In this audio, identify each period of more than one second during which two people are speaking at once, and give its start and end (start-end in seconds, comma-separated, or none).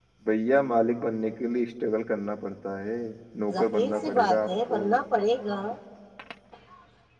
3.5-4.8